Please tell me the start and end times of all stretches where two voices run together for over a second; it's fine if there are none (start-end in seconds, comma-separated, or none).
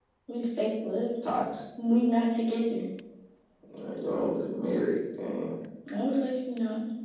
none